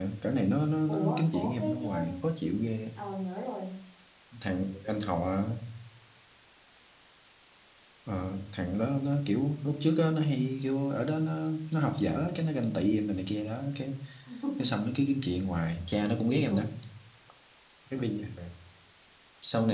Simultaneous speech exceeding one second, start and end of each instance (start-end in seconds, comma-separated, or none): 0.9-2.1